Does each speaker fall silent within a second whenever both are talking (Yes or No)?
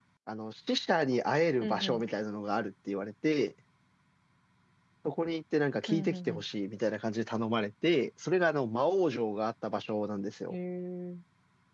Yes